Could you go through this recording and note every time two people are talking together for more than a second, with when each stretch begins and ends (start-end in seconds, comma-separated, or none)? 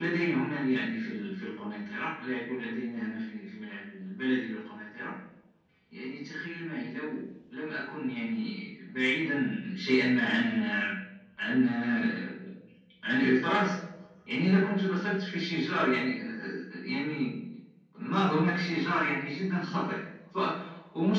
none